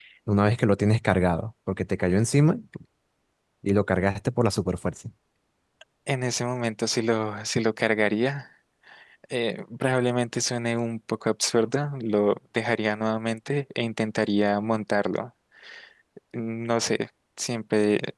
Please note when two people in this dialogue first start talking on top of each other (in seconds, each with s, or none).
none